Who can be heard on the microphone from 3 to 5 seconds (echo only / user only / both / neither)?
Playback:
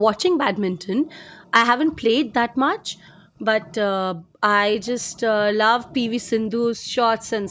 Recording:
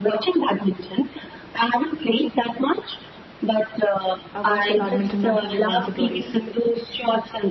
both